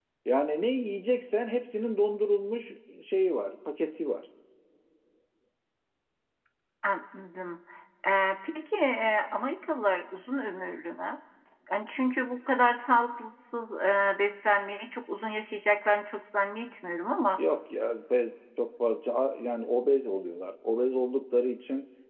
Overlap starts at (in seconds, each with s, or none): none